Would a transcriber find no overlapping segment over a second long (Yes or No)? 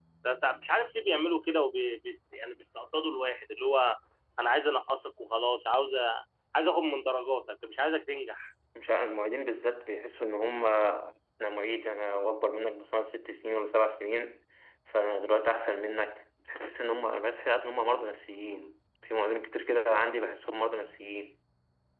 Yes